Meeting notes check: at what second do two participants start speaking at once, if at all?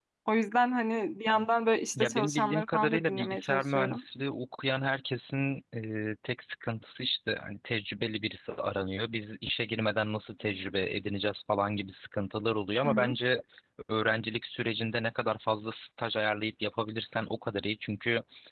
2 s

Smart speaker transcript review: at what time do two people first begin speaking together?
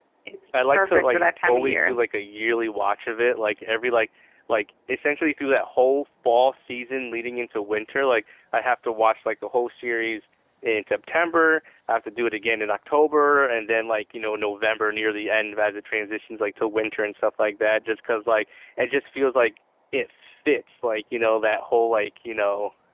1 s

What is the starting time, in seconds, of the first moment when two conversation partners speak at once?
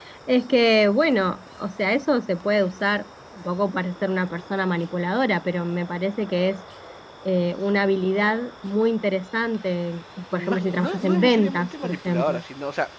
10 s

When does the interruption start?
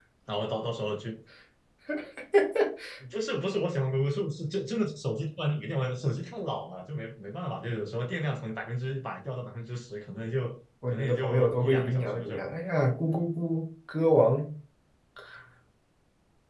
11 s

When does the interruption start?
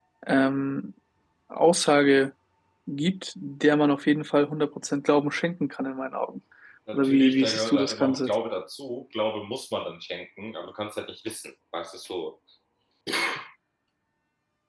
7 s

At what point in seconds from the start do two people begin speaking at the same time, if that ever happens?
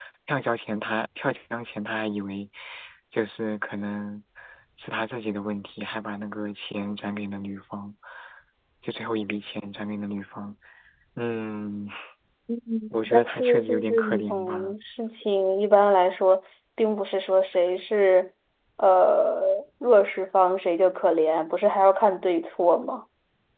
13 s

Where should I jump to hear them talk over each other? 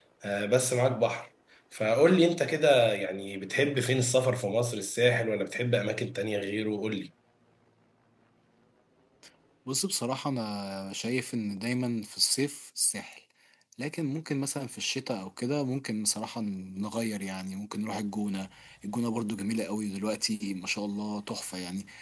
none

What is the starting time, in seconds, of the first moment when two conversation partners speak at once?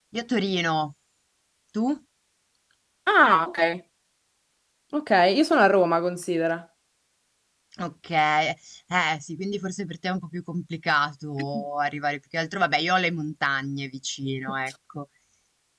none

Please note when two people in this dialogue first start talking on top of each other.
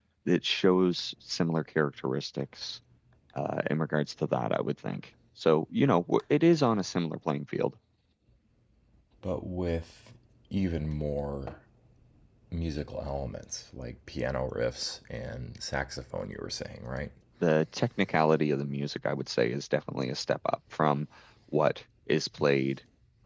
none

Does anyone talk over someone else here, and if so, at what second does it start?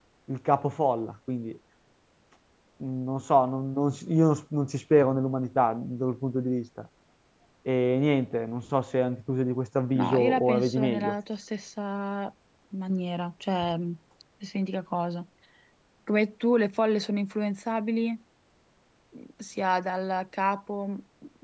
10 s

